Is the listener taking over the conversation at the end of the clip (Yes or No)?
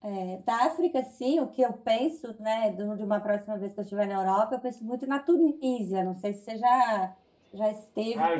Yes